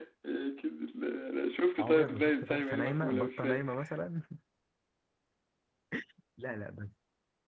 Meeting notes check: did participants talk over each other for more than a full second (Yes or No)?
Yes